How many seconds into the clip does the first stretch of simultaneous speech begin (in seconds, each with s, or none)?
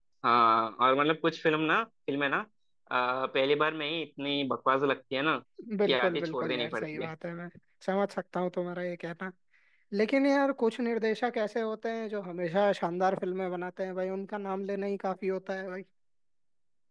5.9 s